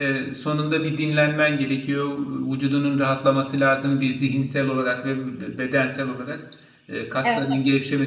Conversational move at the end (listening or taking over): listening